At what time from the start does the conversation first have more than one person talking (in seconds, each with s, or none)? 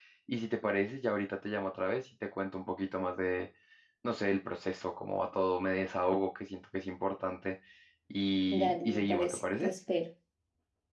8.5 s